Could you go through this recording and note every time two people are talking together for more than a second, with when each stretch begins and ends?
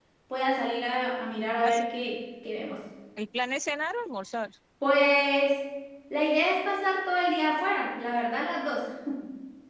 none

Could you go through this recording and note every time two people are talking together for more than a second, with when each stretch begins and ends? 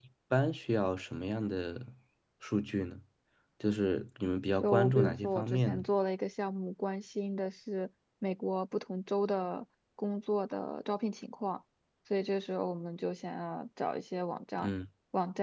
4.6-5.8

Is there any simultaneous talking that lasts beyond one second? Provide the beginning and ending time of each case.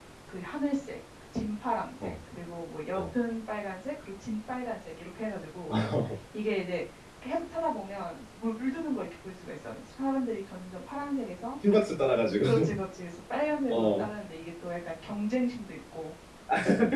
none

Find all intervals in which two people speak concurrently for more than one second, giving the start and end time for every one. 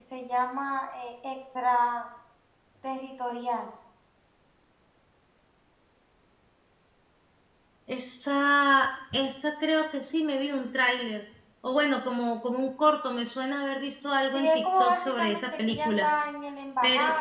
14.3-16.1

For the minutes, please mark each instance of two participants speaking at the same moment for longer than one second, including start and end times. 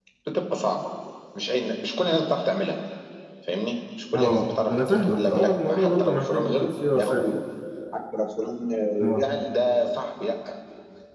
4.1-7.2

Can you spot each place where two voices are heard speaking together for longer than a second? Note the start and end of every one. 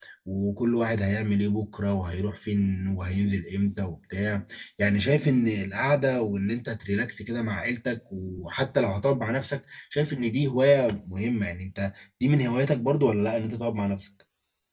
none

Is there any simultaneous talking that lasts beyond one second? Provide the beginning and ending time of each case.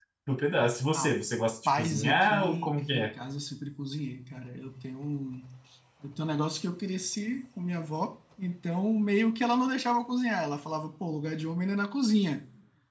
1.8-3.1

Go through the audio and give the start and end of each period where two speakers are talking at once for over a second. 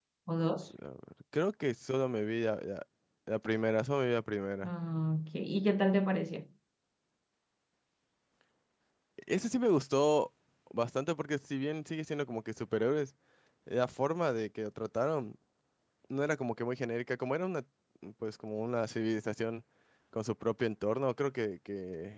none

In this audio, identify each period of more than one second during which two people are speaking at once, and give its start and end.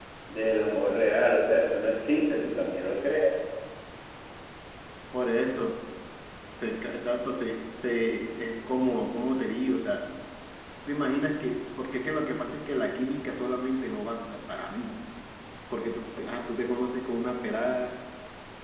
none

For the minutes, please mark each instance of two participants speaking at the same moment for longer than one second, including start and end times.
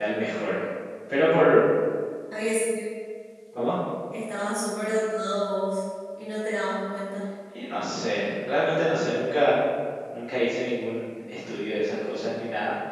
none

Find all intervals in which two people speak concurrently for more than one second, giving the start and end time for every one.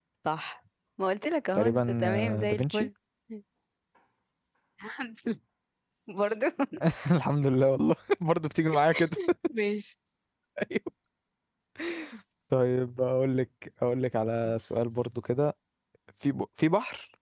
1.6-2.9

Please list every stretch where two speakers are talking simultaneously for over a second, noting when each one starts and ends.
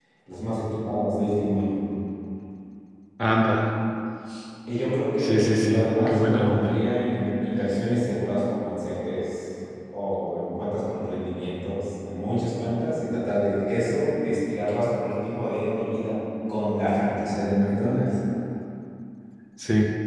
5.2-6.7

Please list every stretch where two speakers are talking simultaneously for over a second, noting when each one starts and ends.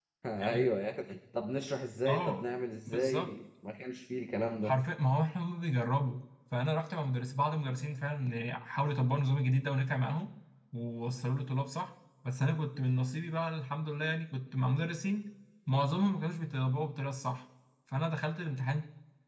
none

